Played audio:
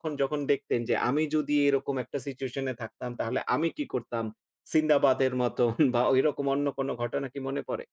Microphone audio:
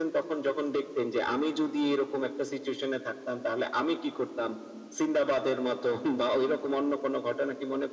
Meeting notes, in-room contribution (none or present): none